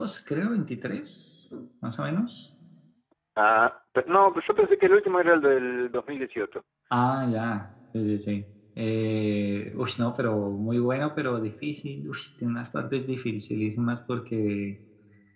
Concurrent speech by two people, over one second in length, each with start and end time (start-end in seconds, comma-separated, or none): none